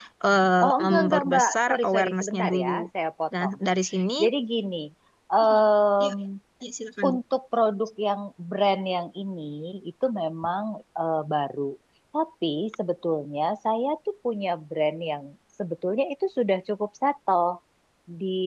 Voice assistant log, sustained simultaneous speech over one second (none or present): present